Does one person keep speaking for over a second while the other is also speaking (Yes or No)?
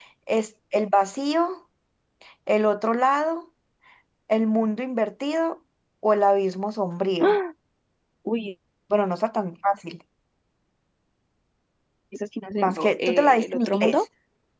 Yes